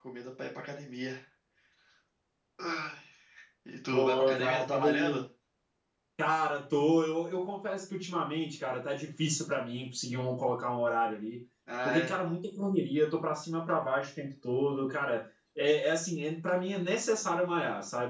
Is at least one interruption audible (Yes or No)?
Yes